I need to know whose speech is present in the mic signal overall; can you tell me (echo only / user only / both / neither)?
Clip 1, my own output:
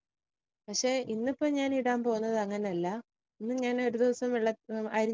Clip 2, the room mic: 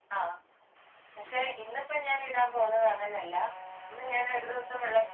echo only